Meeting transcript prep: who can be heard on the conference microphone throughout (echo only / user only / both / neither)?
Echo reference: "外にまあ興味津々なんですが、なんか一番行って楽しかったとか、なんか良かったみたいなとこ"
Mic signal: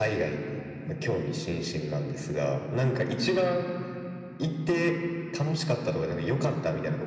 echo only